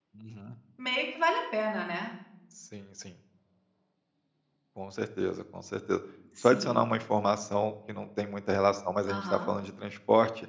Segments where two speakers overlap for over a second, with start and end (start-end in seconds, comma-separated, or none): none